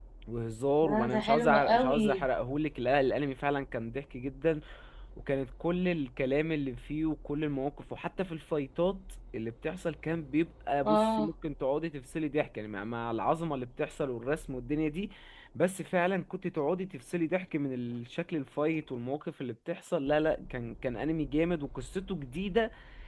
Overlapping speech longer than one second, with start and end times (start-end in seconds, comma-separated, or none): 0.8-2.2